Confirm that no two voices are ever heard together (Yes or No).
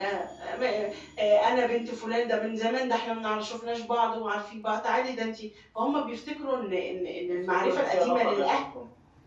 No